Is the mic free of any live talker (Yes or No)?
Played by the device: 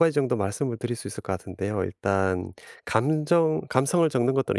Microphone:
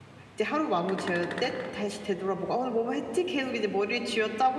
No